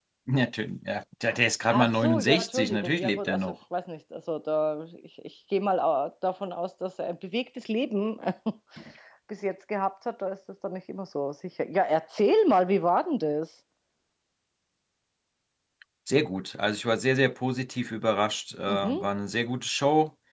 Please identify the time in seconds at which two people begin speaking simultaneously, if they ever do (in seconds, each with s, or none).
1.7 s